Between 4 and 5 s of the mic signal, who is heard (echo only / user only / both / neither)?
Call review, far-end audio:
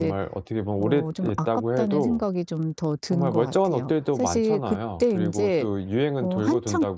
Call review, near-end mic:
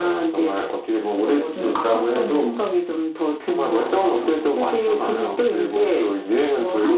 both